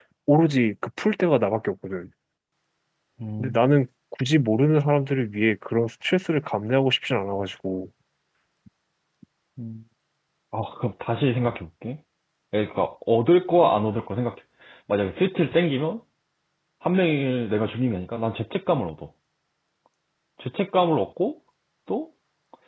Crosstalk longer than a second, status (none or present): none